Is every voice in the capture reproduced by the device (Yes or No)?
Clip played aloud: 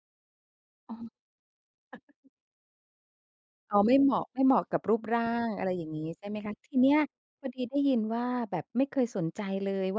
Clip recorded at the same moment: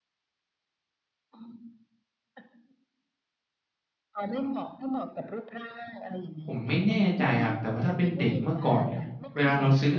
No